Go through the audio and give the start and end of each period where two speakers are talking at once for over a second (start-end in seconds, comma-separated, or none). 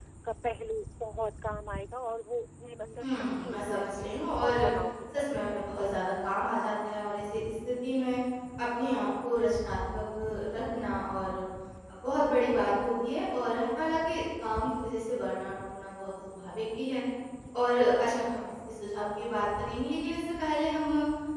3.0-4.6